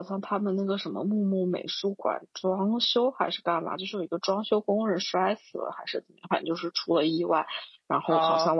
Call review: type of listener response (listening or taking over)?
listening